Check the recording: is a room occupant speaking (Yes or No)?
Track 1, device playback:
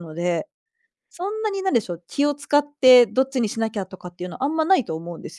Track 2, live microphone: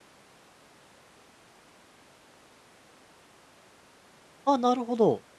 Yes